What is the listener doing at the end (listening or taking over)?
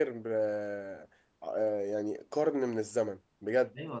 taking over